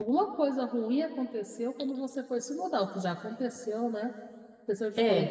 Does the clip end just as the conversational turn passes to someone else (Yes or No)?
No